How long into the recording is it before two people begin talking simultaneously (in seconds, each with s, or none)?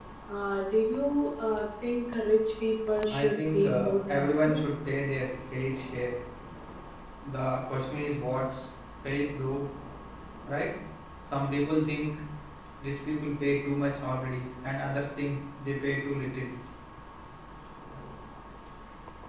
3.1 s